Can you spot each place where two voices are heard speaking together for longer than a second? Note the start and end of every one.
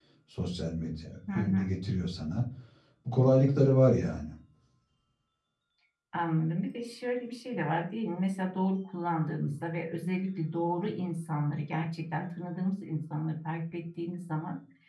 none

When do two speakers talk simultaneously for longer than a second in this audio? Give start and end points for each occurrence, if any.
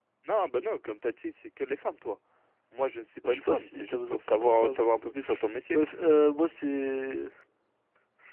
3.2-5.1

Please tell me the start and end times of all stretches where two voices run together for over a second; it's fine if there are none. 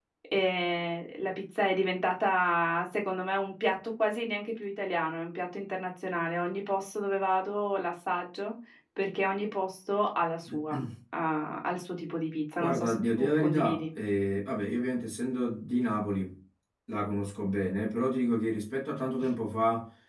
12.6-13.8

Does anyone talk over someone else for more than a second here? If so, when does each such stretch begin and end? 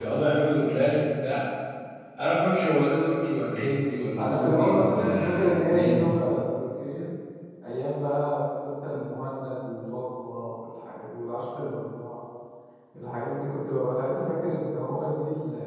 4.2-6.1

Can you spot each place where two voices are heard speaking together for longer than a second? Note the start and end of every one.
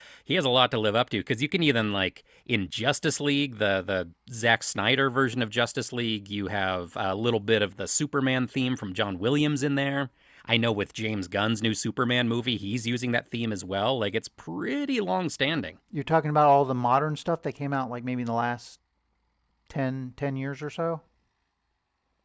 none

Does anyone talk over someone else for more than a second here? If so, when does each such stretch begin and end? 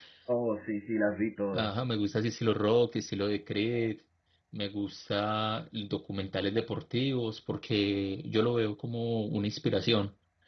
none

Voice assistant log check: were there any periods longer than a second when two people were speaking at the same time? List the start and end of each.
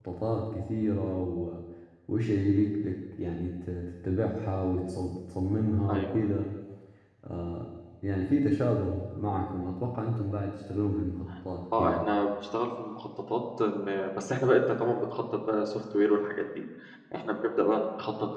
none

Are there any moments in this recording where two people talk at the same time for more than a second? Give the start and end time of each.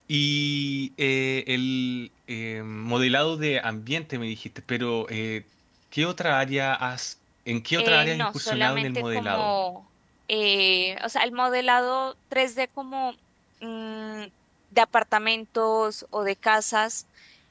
7.8-9.5

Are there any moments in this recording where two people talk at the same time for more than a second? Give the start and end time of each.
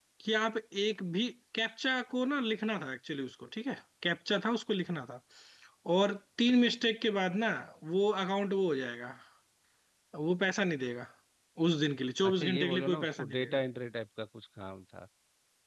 12.2-13.6

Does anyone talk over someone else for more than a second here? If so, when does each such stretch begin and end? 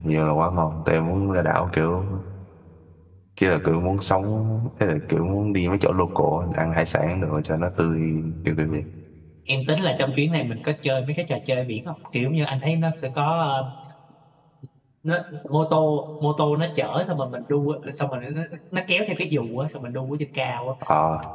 none

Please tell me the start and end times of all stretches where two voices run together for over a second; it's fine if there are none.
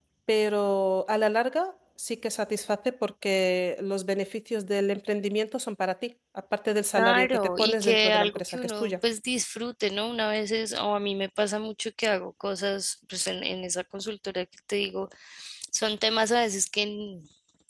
7.0-8.9

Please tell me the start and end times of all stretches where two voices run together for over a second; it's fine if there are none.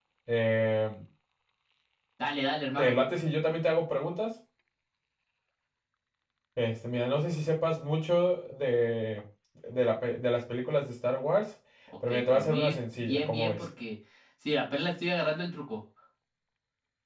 12.1-13.6

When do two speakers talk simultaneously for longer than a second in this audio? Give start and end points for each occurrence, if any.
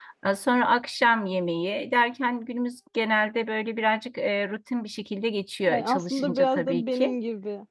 5.6-7.2

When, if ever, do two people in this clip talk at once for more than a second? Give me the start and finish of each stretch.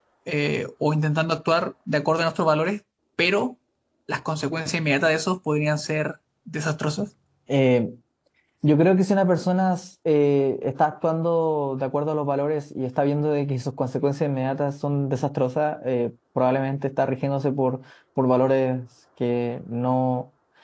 none

